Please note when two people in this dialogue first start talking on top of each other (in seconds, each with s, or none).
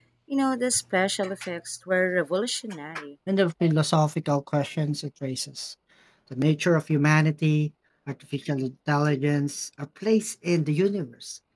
none